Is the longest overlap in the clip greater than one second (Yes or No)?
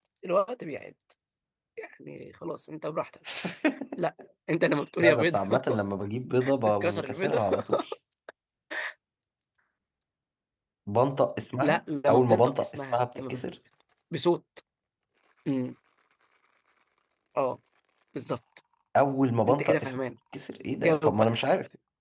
Yes